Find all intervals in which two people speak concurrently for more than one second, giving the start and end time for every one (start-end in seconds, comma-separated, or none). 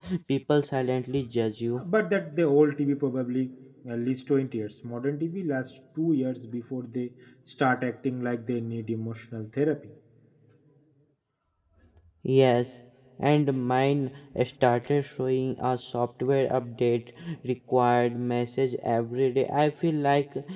none